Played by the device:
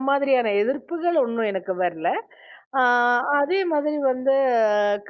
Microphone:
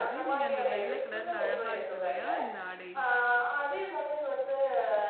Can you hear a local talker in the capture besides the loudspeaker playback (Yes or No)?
Yes